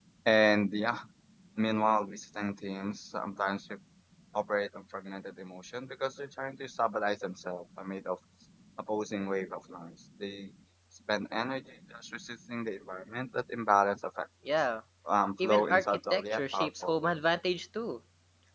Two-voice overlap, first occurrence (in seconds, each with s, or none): 15.4 s